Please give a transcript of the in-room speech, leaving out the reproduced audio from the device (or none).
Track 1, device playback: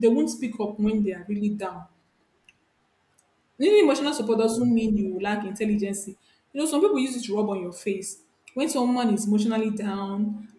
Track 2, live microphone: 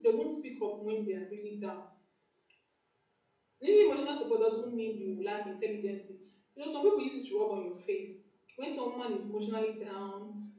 none